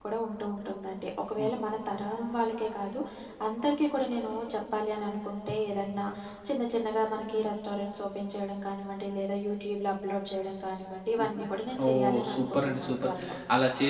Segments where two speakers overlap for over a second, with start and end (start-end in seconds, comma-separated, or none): 11.8-13.1